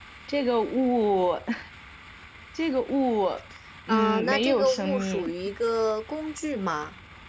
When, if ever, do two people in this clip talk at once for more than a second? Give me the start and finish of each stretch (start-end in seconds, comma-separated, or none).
3.9-5.3